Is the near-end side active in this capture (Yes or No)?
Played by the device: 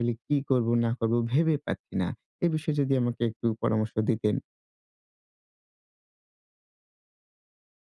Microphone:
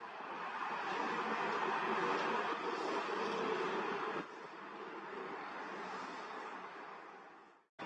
No